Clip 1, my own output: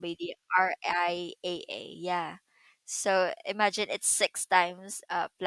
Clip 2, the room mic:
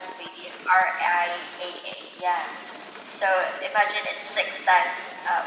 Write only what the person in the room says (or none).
none